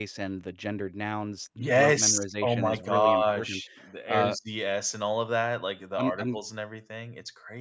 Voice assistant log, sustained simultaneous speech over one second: present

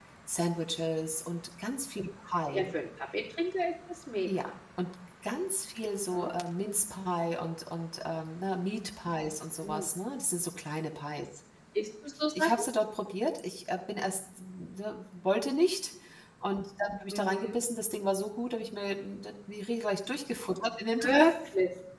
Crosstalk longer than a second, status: none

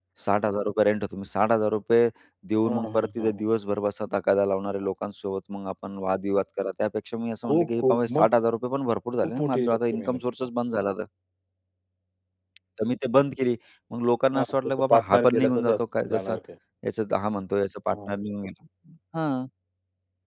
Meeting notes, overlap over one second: present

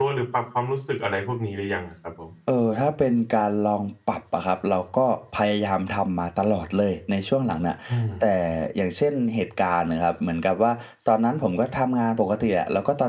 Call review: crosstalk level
none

